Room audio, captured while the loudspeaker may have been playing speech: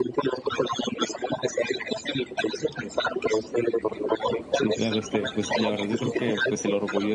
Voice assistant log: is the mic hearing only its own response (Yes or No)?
No